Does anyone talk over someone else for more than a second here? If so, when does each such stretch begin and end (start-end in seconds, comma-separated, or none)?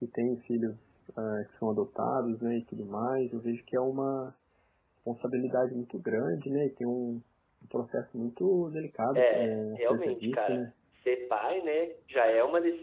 9.1-10.6